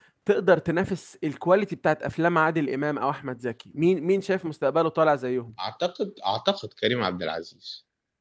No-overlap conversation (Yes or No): Yes